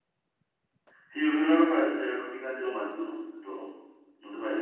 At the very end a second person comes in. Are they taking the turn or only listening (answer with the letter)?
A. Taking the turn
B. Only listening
A